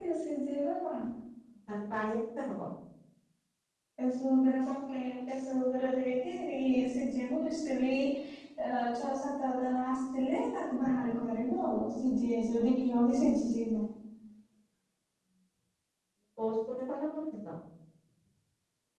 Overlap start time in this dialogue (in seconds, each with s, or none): none